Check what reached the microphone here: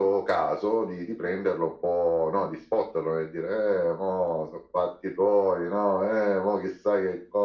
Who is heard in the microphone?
echo only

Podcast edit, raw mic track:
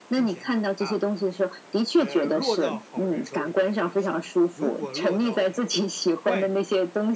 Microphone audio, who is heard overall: both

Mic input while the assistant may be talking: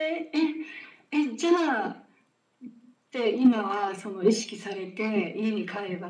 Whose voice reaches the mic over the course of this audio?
echo only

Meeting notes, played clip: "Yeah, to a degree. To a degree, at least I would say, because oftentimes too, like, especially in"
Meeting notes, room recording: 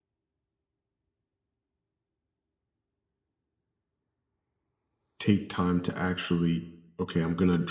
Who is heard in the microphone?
user only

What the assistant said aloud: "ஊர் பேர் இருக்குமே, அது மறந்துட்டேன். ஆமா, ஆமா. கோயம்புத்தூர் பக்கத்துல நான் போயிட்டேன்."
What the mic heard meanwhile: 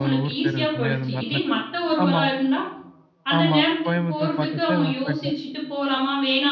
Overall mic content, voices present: both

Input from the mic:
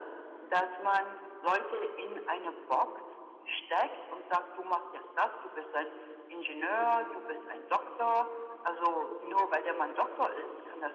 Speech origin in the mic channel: echo only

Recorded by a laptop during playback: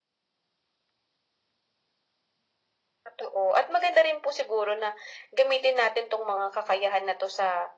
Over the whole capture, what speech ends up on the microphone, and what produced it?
echo only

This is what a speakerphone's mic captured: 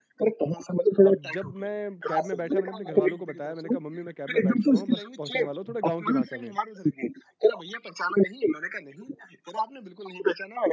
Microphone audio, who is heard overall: both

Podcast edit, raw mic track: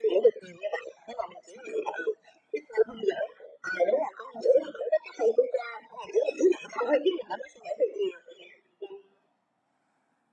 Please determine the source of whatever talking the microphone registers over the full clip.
echo only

